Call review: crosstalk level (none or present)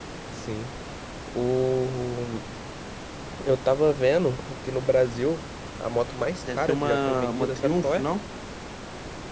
present